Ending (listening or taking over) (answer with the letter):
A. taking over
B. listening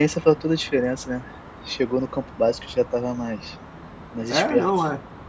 A